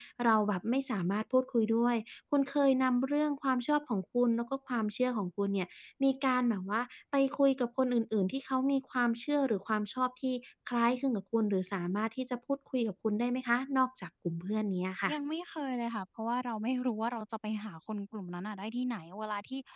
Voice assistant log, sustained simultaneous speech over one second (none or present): none